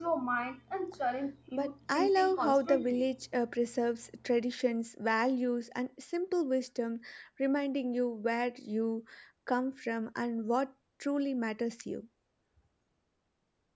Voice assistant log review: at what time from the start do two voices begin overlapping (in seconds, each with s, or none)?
1.5 s